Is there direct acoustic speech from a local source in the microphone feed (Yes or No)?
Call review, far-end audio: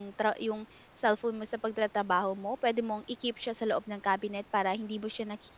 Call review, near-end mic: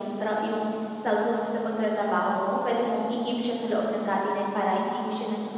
No